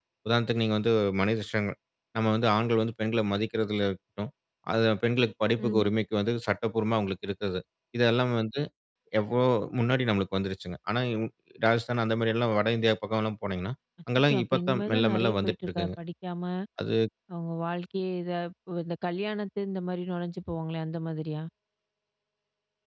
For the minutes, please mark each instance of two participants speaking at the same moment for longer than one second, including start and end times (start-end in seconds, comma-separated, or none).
14.2-15.9